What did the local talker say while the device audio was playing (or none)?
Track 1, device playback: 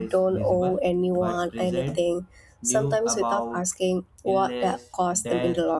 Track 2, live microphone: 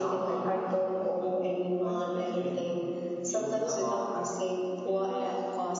none